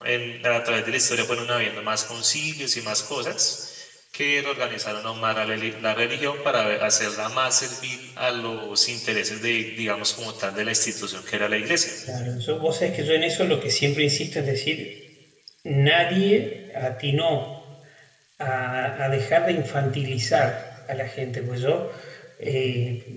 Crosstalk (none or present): none